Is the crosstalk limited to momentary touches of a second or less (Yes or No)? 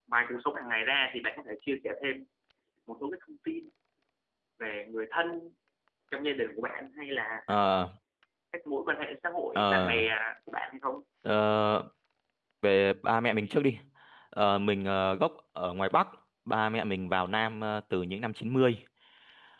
Yes